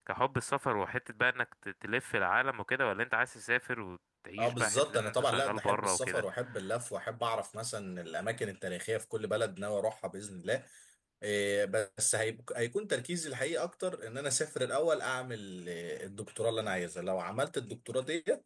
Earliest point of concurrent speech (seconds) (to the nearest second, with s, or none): 4 s